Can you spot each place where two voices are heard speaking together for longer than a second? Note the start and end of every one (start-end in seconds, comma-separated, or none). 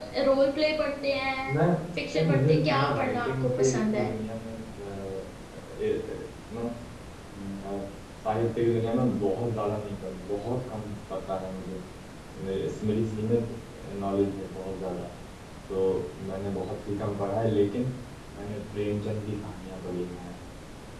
2.1-4.0